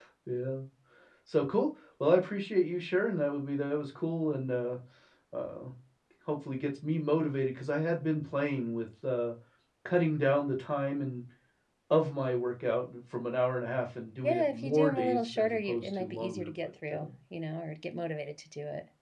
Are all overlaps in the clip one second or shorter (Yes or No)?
No